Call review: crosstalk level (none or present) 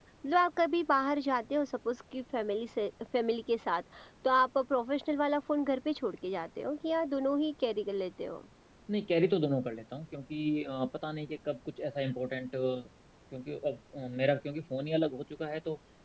none